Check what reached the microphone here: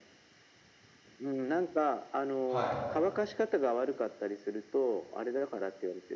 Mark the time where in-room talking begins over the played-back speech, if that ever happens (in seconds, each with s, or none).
2.4 s